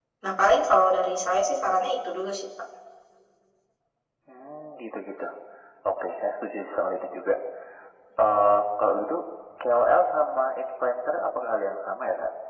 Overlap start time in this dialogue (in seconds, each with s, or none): none